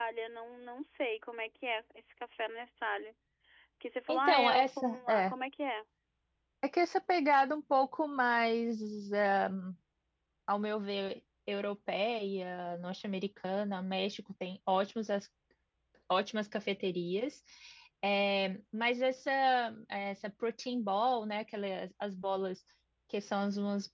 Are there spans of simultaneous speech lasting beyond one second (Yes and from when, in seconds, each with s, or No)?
Yes, from 4.1 s